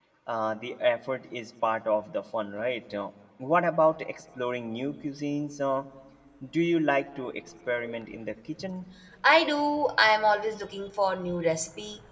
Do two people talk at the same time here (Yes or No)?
No